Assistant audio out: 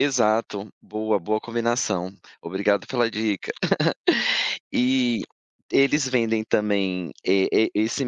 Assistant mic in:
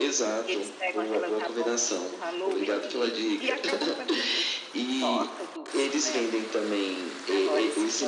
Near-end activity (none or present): present